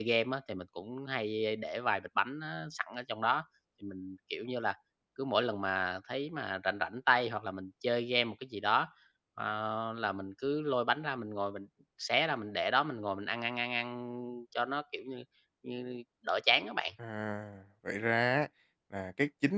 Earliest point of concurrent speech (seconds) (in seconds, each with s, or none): none